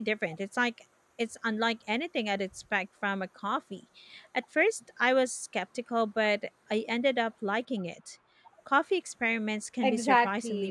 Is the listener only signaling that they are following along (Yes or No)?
No